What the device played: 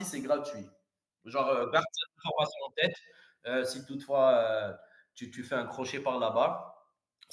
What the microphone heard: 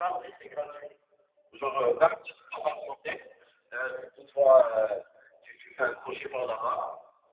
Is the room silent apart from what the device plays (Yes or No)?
Yes